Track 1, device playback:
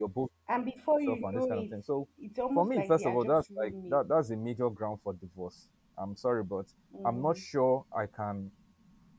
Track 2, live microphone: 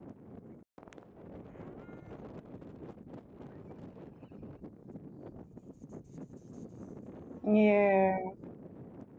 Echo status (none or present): none